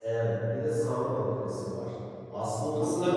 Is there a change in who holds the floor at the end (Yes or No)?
Yes